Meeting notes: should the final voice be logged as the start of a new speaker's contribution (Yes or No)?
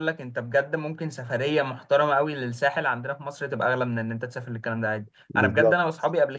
No